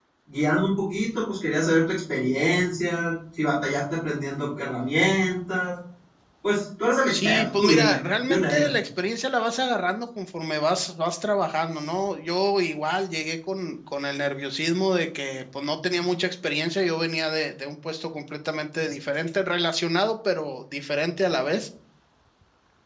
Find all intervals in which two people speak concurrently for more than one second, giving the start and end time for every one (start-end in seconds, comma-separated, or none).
7.1-8.7